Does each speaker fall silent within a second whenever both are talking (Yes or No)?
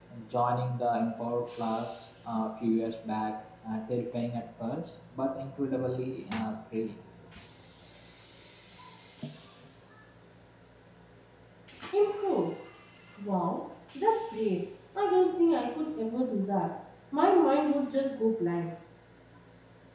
Yes